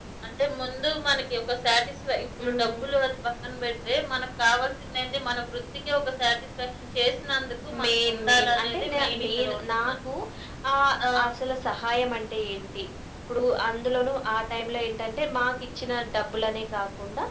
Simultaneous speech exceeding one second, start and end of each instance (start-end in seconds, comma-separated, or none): 7.8-9.9